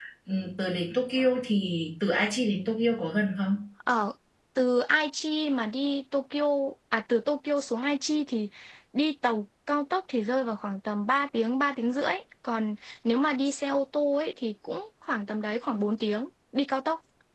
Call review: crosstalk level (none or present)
none